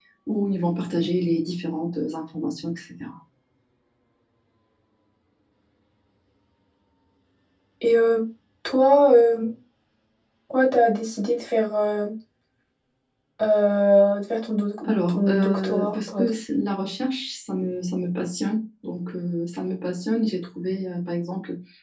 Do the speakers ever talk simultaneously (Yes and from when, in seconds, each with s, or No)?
Yes, from 14.8 s